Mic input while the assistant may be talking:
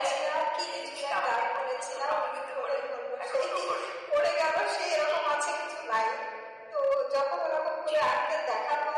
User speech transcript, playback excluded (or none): none